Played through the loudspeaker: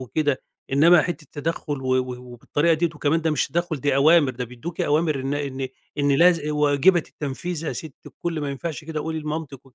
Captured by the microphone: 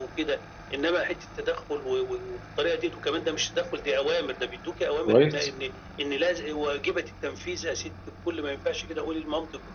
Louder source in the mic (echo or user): user